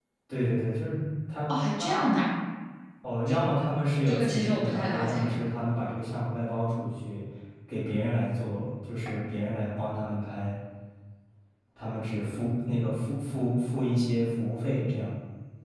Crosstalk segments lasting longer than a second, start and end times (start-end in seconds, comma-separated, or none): 4.1-5.4